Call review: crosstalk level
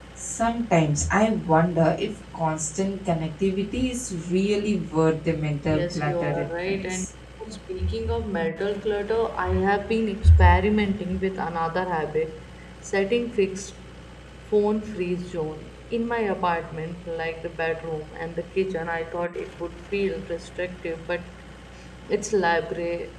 present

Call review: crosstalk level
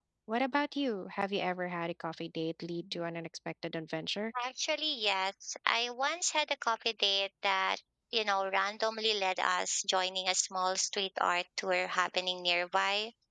none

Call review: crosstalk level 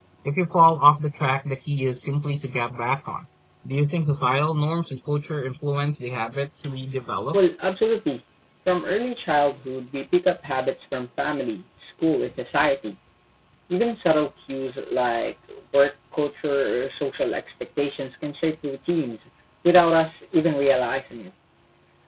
none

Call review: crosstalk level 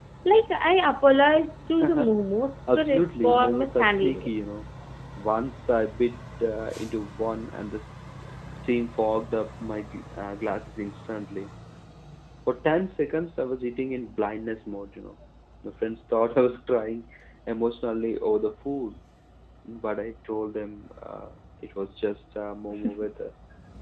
present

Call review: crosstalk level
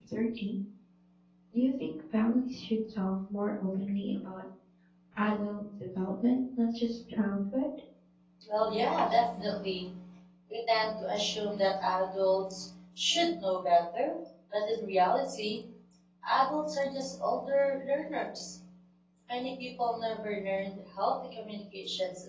none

